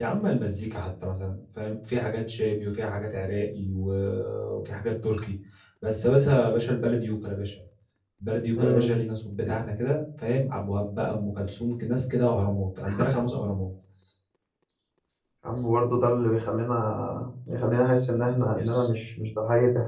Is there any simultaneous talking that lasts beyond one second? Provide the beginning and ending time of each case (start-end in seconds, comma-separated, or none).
none